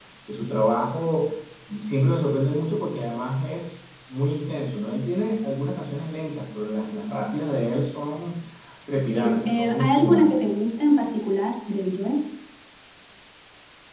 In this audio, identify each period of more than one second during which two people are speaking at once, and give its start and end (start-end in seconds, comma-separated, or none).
9.1-10.4